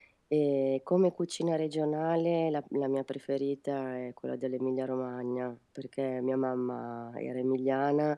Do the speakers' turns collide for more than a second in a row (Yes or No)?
No